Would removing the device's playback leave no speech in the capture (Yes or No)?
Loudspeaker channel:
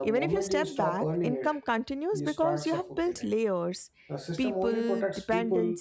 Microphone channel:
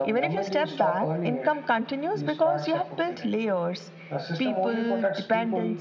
Yes